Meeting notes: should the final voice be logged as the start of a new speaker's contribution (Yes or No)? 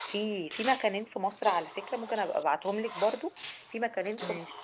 No